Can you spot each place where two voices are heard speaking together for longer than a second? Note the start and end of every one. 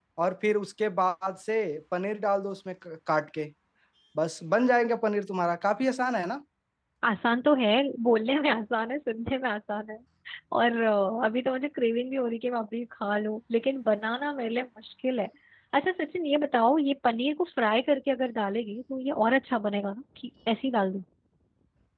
none

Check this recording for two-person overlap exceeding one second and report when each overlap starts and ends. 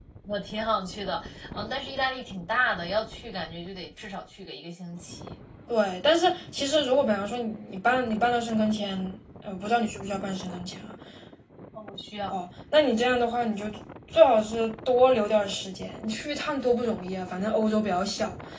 none

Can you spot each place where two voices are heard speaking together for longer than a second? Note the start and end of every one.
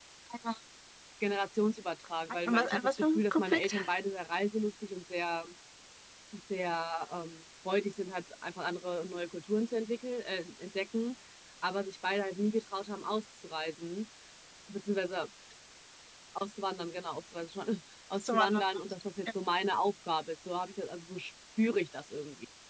2.5-3.8

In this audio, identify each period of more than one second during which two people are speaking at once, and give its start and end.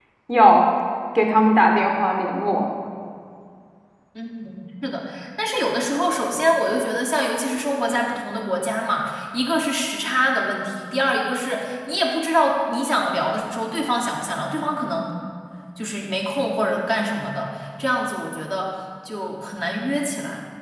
none

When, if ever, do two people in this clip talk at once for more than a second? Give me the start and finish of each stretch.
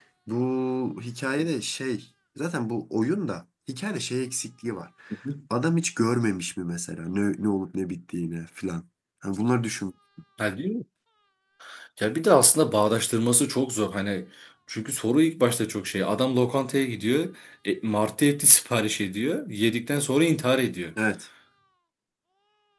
none

